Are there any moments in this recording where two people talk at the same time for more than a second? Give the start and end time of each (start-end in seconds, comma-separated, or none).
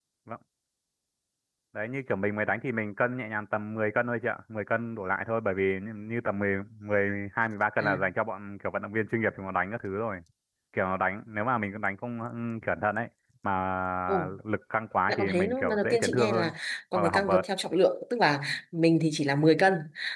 15.1-16.5